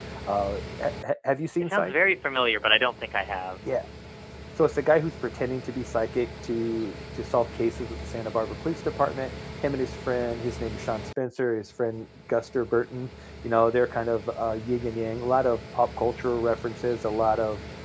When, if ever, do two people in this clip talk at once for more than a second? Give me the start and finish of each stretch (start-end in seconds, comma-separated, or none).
none